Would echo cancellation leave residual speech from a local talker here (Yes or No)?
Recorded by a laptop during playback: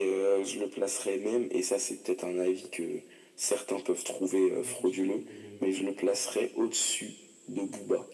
Yes